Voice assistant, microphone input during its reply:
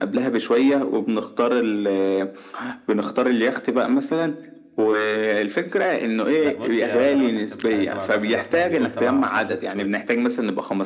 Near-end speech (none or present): present